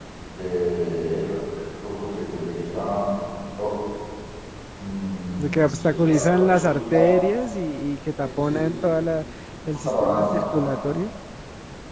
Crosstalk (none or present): present